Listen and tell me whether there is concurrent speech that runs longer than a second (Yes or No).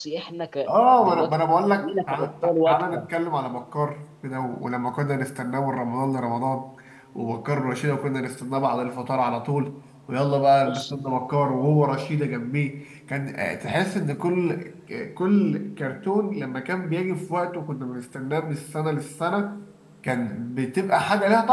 Yes